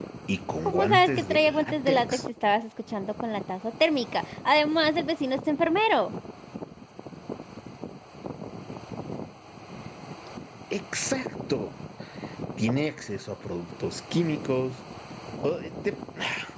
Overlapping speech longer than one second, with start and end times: 0.7-2.2

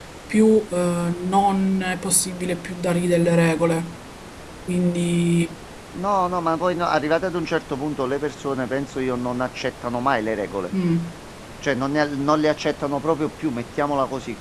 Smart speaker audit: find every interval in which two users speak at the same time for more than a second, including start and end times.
none

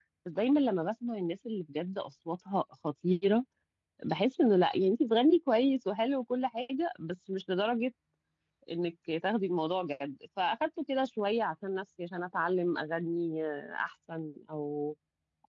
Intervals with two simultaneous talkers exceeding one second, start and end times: none

